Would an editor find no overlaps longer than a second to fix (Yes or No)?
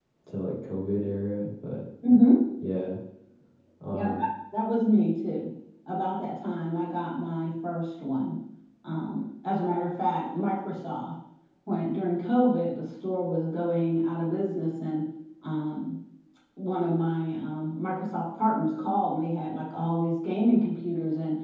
Yes